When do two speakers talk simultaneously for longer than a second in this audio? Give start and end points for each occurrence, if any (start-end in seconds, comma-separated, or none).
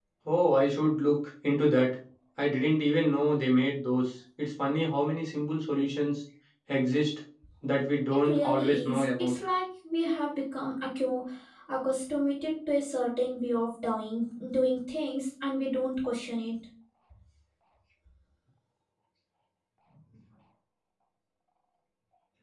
8.1-9.3